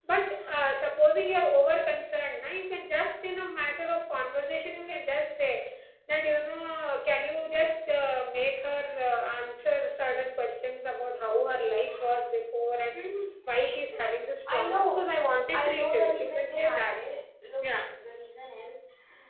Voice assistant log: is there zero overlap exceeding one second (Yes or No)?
No